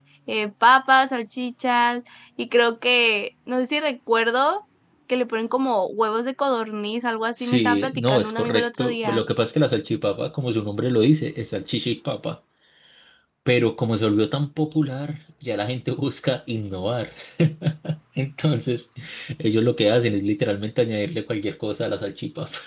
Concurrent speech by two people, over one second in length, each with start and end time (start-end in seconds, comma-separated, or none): 7.4-9.2